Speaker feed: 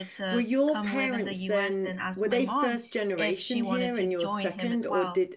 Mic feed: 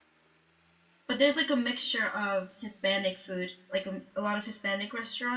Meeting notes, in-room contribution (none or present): present